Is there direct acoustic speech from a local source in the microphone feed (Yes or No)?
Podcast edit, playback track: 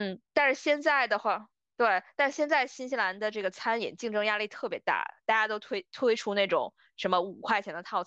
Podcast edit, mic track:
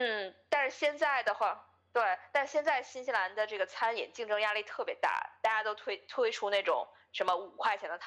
No